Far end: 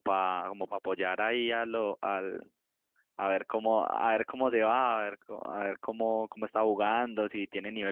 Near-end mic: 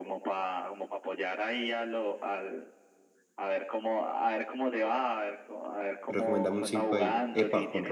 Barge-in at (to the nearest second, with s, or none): 6 s